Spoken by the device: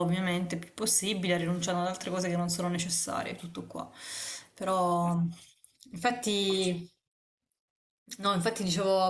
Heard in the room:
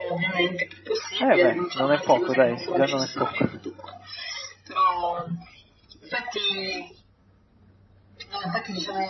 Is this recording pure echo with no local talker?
No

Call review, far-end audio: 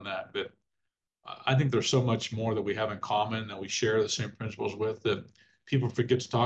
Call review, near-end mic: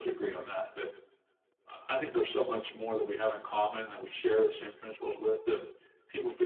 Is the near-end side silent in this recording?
Yes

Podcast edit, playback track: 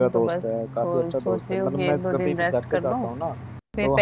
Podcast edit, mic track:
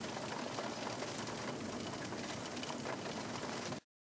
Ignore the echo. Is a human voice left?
No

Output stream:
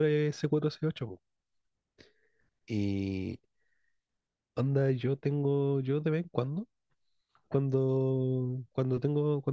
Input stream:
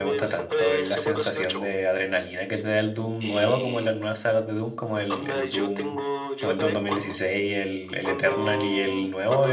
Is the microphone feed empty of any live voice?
No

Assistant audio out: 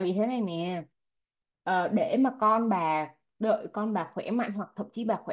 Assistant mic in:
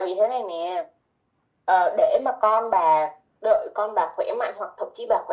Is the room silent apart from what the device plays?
Yes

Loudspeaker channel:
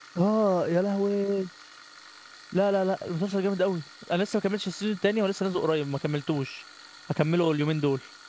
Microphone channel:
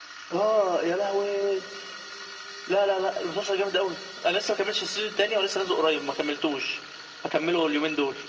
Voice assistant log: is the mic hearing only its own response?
Yes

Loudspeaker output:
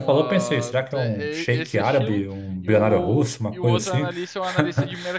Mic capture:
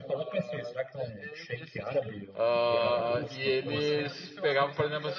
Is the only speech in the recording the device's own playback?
No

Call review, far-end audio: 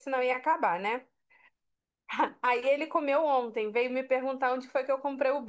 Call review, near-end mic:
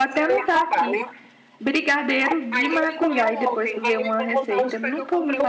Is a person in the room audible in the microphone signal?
Yes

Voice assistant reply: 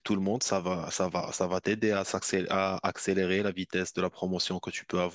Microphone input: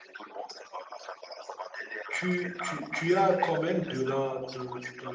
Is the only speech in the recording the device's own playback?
No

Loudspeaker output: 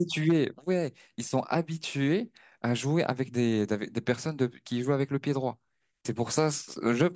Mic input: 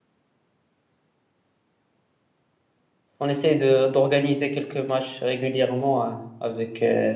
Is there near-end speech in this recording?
Yes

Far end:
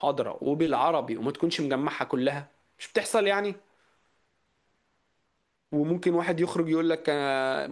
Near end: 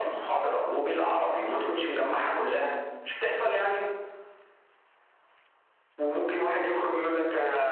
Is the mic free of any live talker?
Yes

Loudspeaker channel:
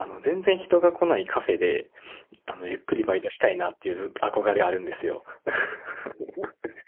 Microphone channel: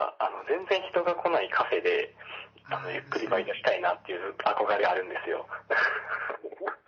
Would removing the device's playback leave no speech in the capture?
No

